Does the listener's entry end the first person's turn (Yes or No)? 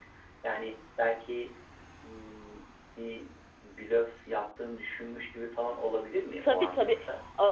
Yes